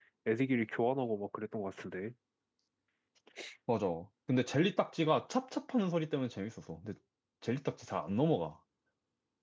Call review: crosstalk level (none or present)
none